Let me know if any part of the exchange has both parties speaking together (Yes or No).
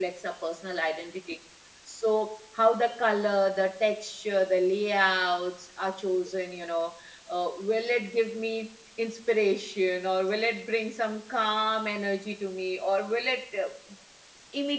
No